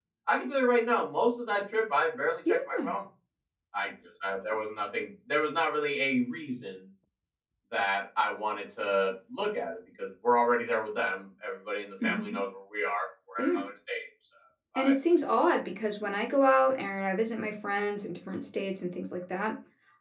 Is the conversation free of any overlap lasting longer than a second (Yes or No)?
Yes